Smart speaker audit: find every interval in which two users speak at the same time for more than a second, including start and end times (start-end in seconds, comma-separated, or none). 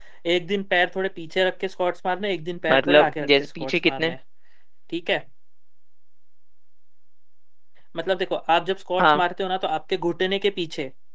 2.7-4.1